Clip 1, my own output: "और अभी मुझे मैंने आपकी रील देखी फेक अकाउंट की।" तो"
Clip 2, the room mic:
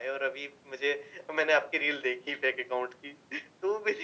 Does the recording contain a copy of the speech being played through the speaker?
Yes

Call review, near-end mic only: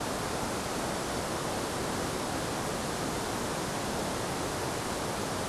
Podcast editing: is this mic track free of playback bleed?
Yes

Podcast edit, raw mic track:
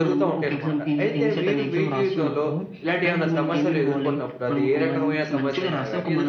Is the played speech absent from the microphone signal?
No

